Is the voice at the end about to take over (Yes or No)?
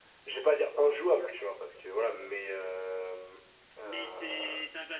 Yes